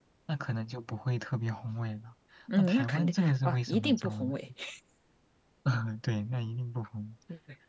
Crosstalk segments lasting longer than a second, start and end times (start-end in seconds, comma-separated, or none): 2.6-4.3